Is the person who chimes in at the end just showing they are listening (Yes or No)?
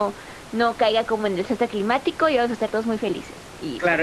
No